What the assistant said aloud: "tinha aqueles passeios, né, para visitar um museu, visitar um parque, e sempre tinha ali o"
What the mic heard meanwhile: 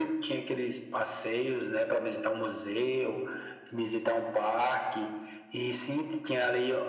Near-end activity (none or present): none